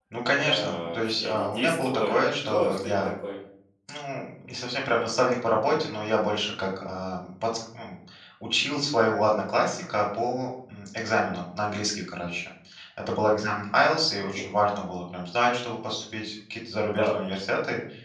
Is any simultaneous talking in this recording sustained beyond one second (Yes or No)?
Yes